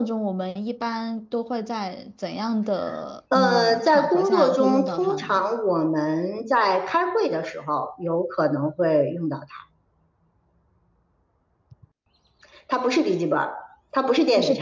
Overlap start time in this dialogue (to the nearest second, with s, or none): 3 s